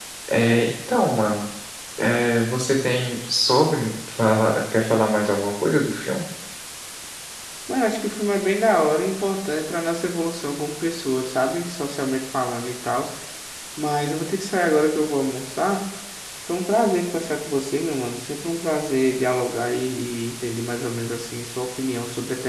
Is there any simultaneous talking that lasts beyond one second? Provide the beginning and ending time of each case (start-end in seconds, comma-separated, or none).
none